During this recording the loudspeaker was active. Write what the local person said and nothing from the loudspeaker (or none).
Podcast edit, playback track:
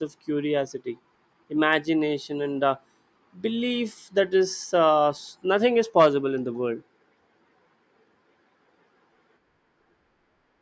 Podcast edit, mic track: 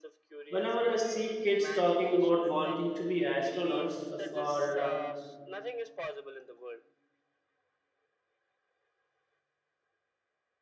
Whenever I see kids talking about wanting to be astronauts or uh,